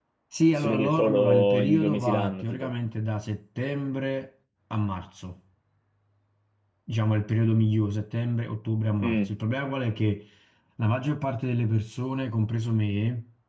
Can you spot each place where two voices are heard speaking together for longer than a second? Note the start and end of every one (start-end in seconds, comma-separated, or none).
0.5-2.7